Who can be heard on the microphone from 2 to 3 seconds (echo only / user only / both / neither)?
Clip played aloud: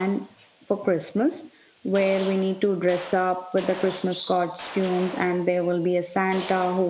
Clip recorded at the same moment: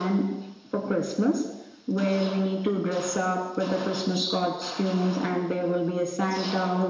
echo only